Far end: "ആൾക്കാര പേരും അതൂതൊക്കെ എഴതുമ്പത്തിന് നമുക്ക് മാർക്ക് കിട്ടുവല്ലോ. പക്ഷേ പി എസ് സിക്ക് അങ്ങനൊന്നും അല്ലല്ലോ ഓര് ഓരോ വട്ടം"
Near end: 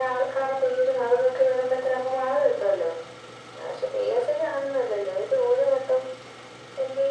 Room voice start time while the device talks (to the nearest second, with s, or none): none